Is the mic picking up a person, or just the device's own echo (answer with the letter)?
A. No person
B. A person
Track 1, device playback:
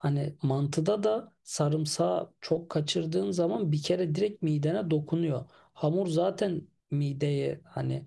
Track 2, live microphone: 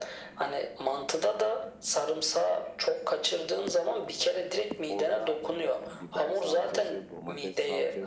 B